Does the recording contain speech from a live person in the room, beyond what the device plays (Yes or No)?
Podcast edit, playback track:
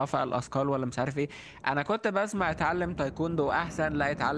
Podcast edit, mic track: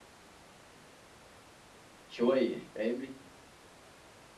Yes